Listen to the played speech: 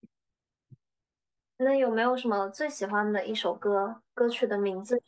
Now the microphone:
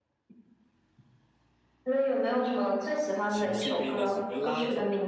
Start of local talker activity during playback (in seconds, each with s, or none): 3.3 s